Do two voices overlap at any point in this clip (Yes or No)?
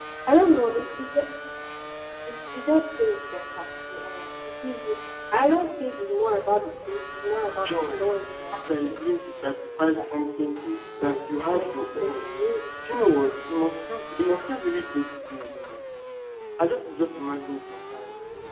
Yes